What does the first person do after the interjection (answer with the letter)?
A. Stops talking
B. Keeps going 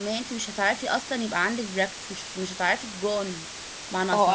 A